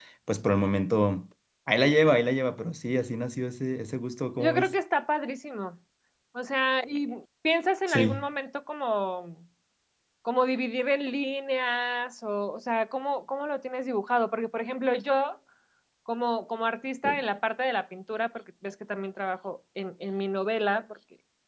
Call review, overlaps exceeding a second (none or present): none